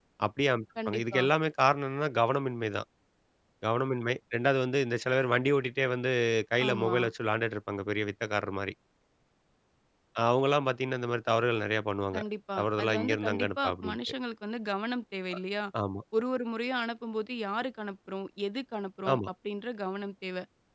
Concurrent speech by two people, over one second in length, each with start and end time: 12.6-14.0

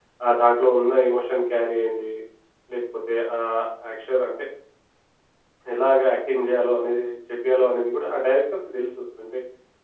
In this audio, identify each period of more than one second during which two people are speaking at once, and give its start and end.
none

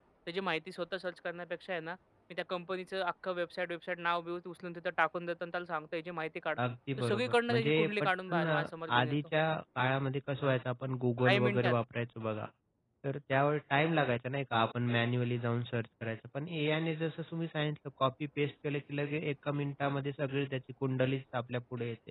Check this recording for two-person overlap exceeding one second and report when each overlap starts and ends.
7.0-8.6

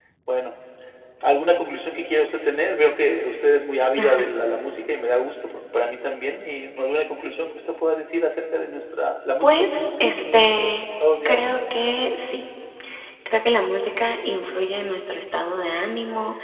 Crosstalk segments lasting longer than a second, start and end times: 9.4-10.7

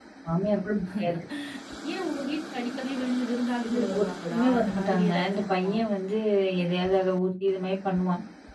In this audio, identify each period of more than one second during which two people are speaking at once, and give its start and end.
3.6-5.7

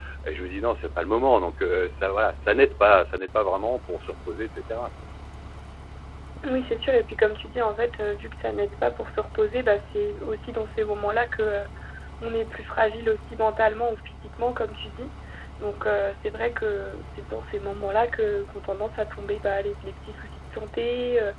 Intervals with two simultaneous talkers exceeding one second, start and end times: none

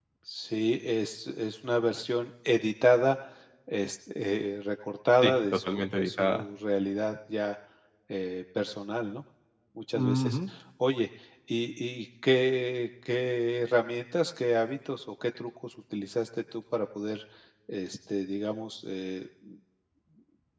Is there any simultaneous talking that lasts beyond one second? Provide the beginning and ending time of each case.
5.2-6.4

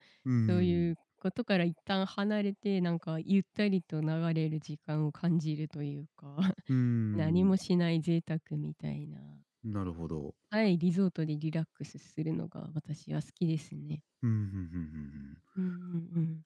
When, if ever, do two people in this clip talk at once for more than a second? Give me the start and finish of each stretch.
none

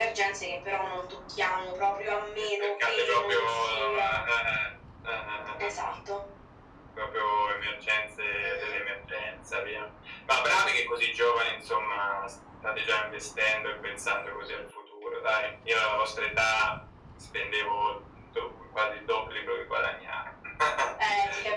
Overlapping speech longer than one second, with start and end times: 2.4-4.2

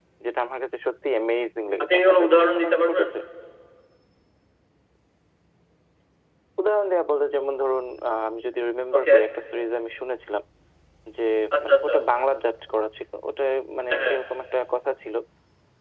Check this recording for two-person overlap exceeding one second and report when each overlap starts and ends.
1.8-3.1

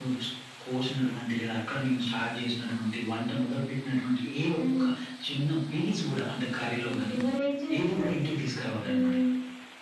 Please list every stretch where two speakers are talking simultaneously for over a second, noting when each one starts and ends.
none

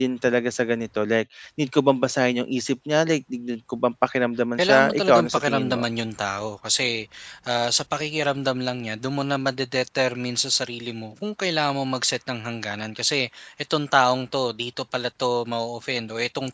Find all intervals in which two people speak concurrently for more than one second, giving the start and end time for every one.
4.6-5.9

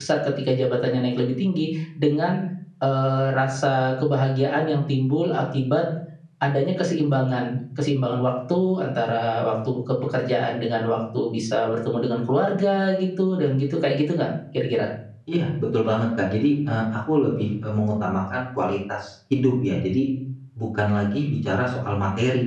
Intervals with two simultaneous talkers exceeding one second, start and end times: none

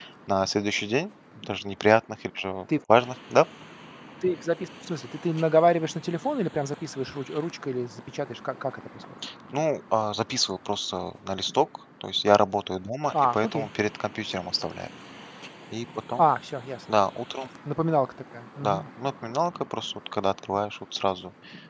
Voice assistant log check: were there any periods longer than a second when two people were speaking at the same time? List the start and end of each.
none

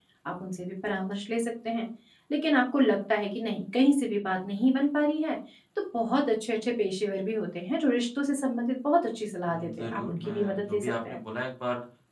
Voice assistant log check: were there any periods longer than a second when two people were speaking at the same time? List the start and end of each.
9.5-11.2

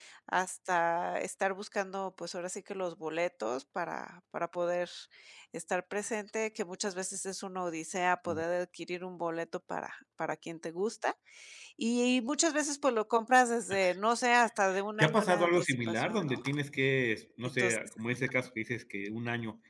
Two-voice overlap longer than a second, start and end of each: 15.0-16.4

